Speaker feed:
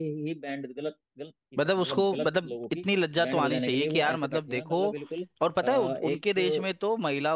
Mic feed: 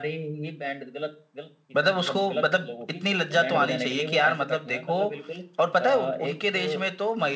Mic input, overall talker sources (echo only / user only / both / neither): both